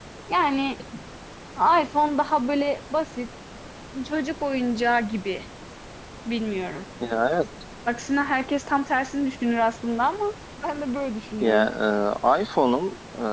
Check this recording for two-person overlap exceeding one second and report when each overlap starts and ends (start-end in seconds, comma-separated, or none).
none